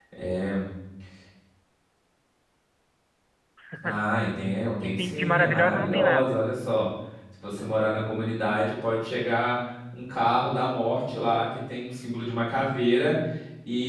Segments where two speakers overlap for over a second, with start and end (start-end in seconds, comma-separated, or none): 4.8-6.4